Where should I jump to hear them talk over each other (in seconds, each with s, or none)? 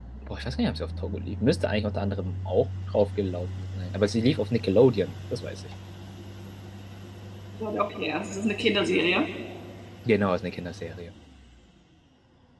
none